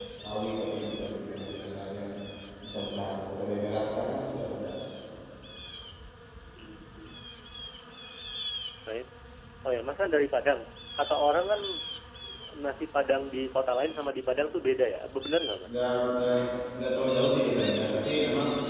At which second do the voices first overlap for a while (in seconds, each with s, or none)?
none